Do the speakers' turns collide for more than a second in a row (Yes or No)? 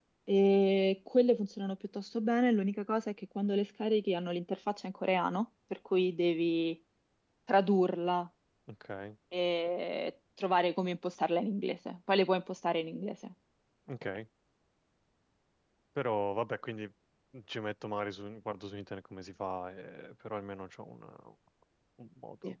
No